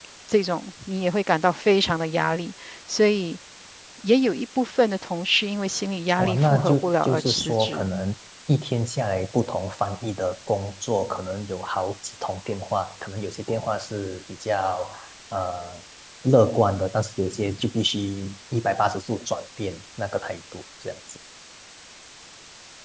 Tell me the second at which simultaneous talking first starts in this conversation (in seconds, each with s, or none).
6.2 s